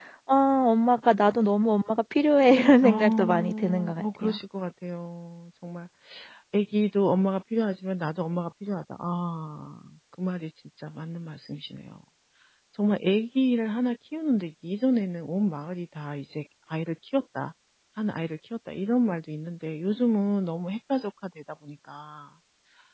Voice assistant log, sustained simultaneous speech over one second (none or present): present